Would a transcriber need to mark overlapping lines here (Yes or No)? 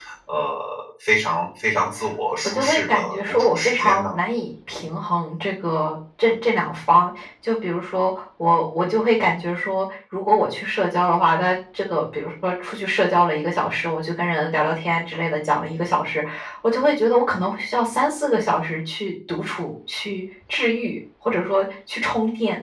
Yes